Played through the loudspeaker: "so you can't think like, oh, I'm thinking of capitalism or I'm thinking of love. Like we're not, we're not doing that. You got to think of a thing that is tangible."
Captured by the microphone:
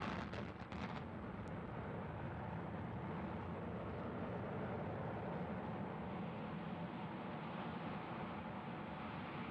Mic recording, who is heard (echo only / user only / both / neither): neither